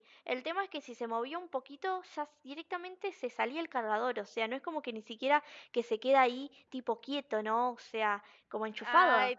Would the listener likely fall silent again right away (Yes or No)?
No